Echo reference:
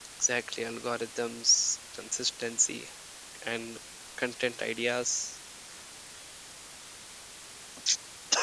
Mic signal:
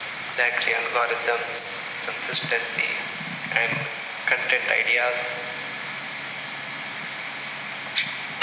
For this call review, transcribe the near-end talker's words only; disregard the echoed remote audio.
none

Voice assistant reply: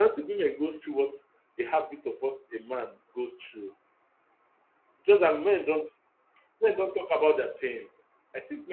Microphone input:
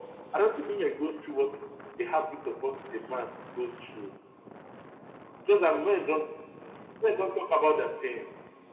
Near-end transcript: none

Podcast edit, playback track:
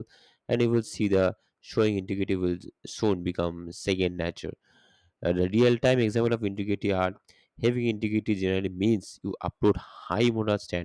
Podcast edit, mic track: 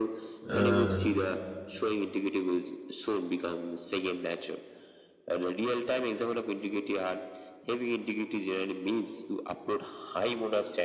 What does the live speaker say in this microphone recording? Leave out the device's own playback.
Uh,

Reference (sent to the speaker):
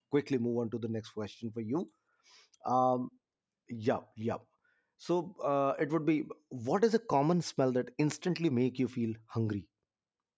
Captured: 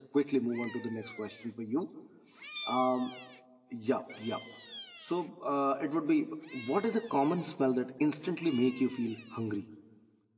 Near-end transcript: none

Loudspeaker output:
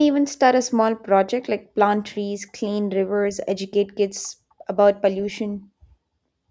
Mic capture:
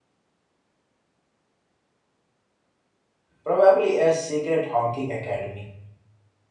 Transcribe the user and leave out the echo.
probably a secret honking academy.

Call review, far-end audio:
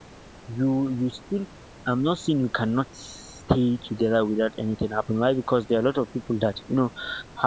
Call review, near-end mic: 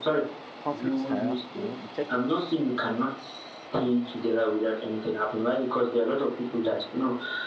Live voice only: conflict style. You know, you check your

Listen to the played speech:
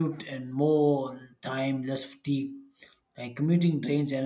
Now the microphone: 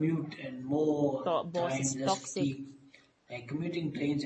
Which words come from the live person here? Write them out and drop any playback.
to- boss is toxic

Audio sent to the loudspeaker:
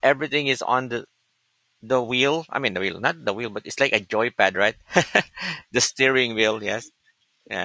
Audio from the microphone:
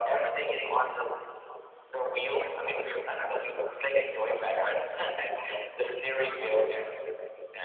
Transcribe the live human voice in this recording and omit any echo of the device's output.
none

